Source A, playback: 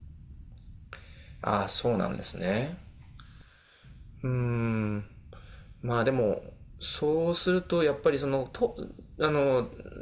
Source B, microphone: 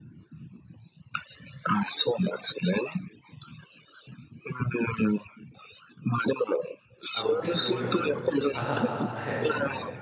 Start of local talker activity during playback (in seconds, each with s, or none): 7.1 s